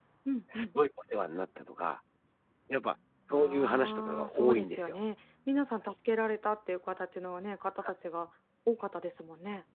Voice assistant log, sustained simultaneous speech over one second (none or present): present